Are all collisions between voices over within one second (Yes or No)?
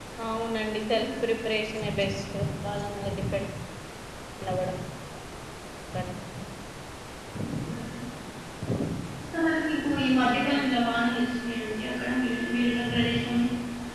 Yes